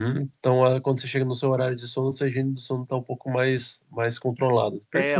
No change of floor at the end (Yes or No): No